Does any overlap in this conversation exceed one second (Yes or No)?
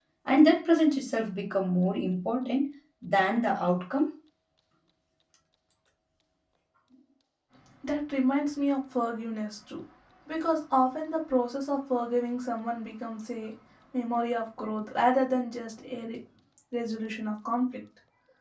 No